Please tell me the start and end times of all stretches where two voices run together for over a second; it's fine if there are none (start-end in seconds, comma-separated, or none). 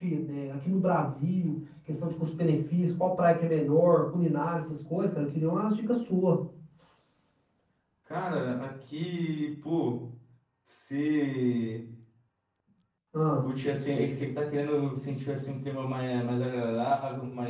none